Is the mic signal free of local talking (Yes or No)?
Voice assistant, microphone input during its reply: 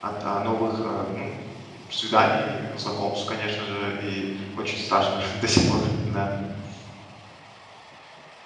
No